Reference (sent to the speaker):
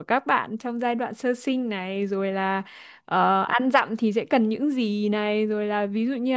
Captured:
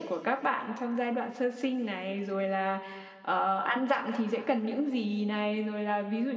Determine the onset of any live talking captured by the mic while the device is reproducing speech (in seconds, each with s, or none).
none